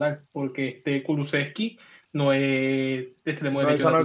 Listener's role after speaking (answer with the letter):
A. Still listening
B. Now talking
B